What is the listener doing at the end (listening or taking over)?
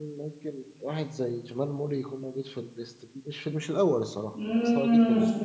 taking over